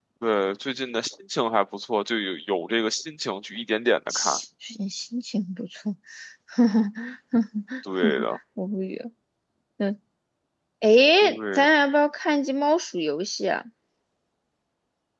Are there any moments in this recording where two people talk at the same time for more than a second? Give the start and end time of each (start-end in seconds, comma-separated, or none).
none